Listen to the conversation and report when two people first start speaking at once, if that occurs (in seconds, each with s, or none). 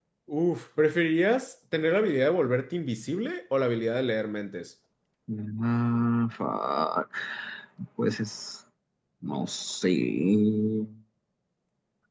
none